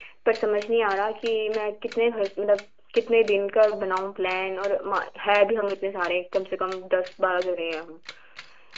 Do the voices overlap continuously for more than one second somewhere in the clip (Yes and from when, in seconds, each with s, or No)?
No